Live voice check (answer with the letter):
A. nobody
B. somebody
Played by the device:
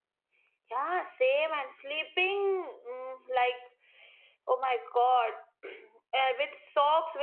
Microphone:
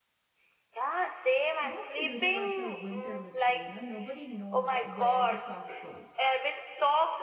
B